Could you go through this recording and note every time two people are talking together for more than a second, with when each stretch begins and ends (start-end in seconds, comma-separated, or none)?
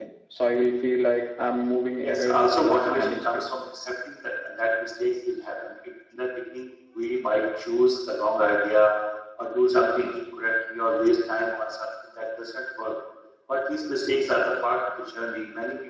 2.0-3.4